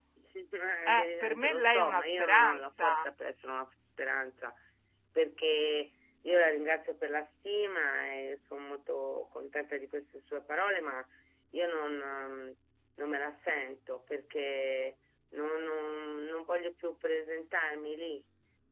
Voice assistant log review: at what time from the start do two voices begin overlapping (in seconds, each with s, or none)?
0.9 s